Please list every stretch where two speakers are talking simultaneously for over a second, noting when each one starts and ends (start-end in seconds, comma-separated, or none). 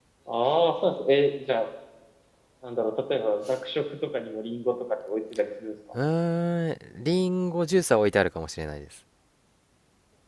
none